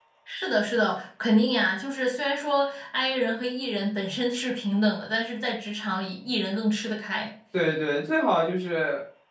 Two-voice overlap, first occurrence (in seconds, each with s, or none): none